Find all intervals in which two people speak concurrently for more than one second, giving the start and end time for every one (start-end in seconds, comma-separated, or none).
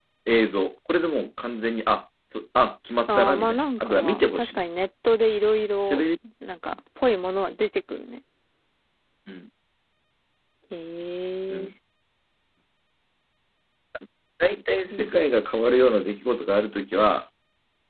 3.1-4.6